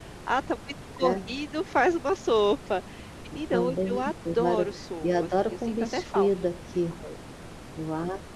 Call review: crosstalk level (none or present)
present